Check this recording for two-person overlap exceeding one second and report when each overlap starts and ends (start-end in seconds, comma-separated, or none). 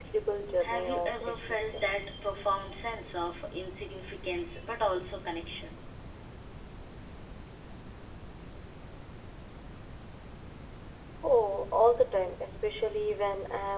0.6-2.1